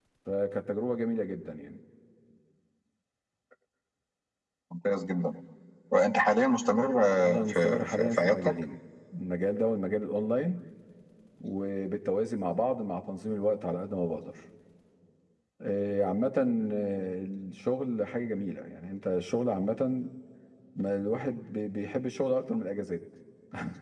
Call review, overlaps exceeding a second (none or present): present